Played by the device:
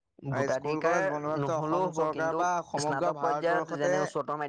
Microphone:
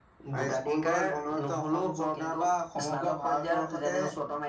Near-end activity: none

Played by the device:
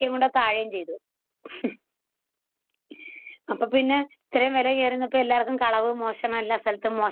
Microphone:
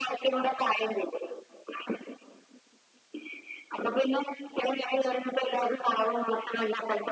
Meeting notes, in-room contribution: none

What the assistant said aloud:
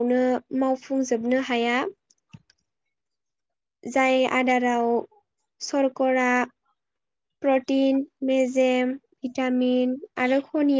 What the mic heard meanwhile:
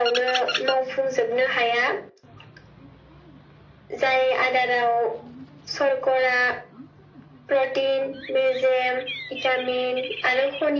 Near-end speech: none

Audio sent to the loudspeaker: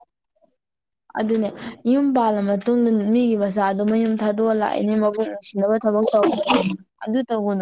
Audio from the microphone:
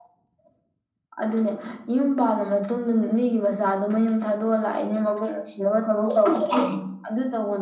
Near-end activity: none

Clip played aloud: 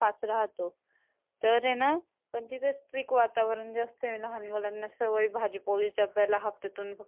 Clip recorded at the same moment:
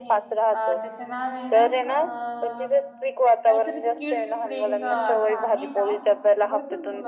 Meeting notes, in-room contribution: present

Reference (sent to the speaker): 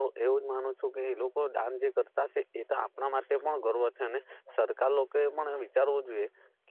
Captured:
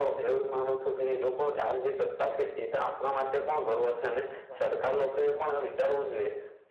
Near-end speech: none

